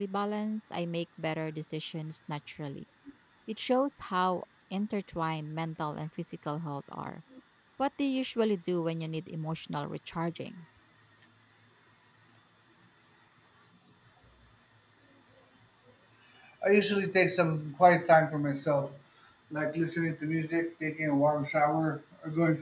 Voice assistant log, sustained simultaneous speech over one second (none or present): none